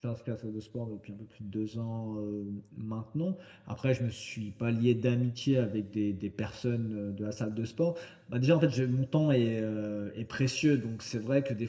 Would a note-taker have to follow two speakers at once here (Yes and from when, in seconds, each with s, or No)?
No